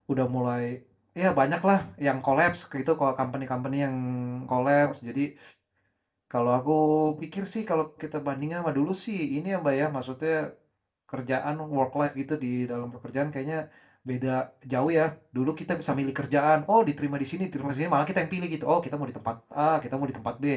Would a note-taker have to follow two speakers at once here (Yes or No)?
No